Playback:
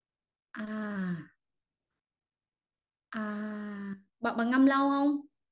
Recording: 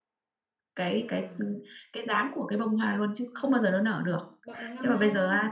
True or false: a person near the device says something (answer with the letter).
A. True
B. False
A